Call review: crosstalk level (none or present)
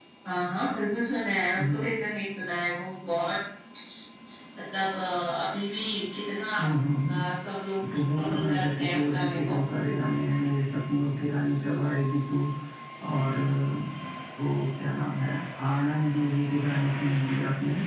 present